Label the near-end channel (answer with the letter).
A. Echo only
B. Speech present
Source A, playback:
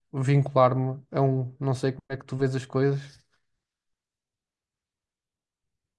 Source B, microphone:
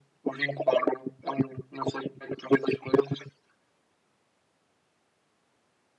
A